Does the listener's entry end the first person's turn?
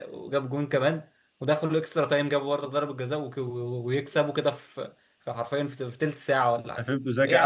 Yes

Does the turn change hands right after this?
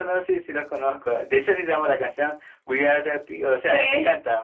No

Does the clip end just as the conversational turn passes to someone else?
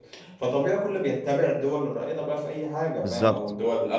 No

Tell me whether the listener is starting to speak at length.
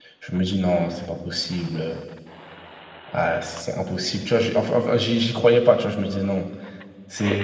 Yes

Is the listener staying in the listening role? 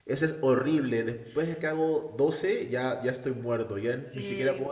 No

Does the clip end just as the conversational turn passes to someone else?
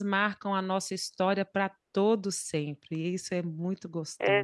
Yes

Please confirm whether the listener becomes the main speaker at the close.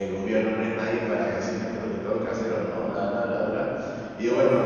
No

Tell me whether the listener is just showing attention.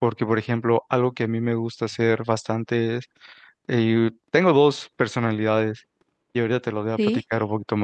Yes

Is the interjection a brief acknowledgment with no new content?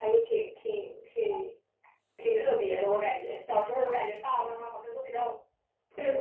Yes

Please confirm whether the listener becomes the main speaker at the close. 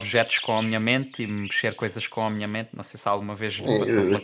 Yes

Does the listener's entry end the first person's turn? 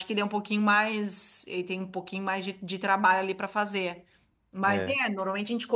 No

